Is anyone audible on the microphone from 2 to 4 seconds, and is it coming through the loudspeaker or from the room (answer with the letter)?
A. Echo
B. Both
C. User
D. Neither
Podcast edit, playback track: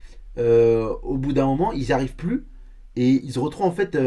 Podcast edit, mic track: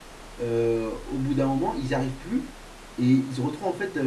A